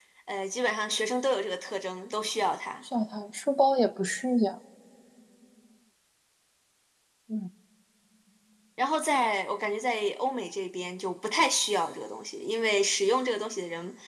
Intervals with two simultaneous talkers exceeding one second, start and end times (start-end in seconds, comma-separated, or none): none